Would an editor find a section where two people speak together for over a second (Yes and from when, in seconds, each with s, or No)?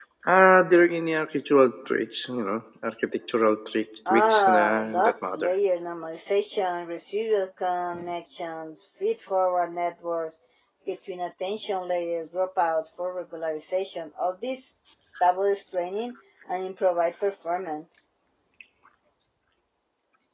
Yes, from 4.1 s